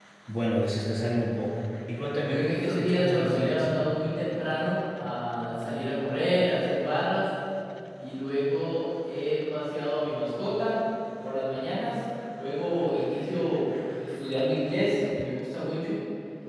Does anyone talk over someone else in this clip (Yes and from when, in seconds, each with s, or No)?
Yes, from 2.3 s